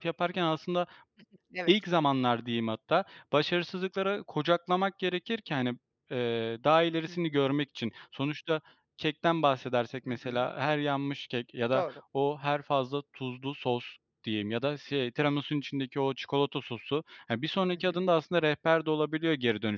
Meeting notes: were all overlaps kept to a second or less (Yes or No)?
Yes